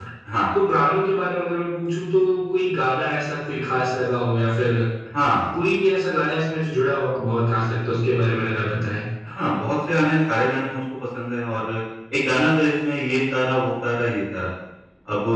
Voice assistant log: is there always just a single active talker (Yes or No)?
Yes